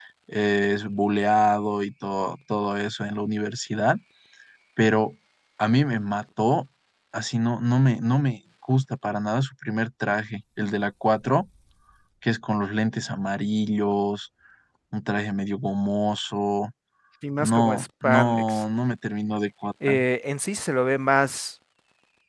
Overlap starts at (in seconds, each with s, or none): 17.4 s